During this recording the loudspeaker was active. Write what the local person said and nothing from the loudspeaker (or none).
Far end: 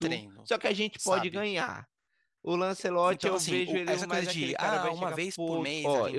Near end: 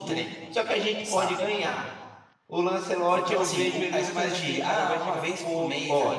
none